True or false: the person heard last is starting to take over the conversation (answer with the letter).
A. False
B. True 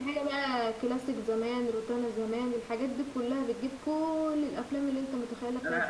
B